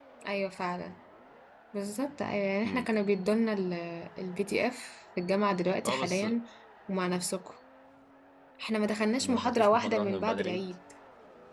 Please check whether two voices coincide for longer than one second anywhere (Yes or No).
Yes